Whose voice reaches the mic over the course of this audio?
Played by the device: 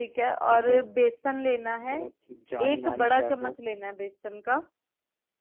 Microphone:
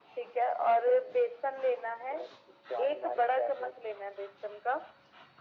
echo only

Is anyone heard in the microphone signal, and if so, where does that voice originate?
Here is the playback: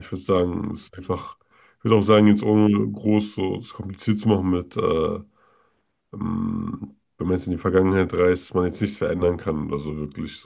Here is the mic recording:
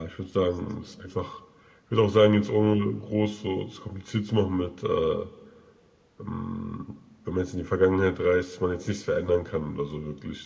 echo only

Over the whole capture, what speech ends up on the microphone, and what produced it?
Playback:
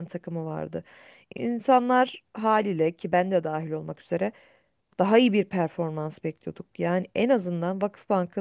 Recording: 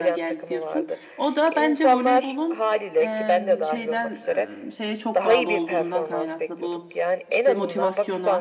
both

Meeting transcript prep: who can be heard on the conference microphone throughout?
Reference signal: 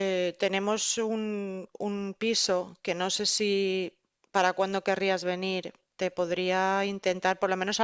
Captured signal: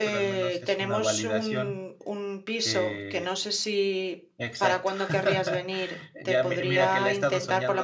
both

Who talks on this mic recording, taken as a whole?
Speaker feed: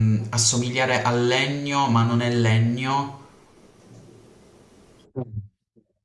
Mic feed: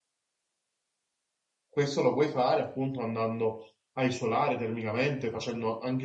user only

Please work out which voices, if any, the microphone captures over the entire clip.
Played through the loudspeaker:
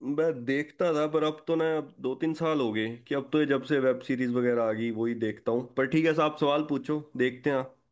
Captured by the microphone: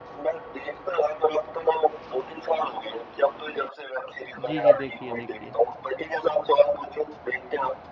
both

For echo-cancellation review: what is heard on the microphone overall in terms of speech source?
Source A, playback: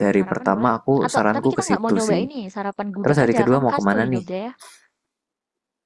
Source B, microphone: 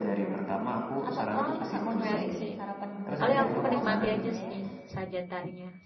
both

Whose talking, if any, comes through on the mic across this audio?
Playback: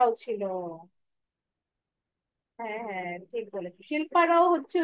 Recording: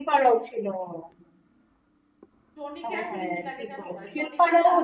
both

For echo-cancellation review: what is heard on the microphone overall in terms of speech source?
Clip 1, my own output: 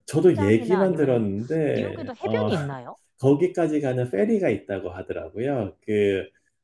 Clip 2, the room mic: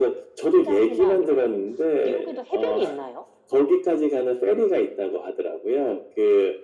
echo only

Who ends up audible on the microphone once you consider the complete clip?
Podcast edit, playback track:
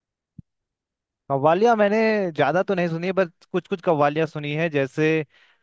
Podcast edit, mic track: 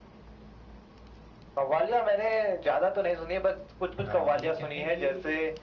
both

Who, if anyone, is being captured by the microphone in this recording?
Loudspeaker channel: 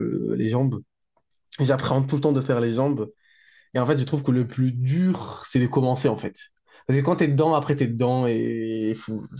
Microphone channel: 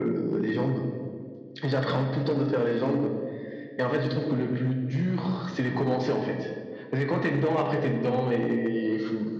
echo only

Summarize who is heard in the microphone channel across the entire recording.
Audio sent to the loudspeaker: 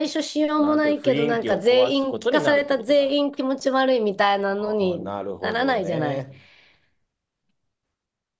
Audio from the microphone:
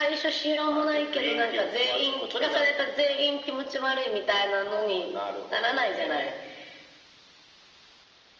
echo only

